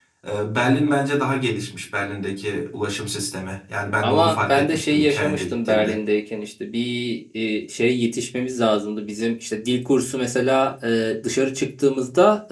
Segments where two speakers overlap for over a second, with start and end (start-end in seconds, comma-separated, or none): 4.0-6.0